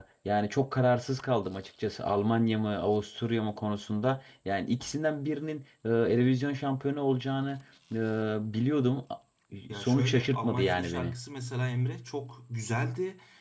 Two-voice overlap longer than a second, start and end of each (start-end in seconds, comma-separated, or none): 9.7-11.1